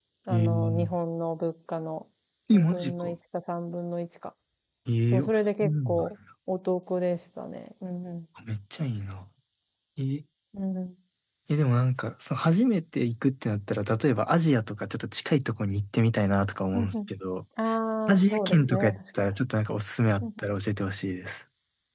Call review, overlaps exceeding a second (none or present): present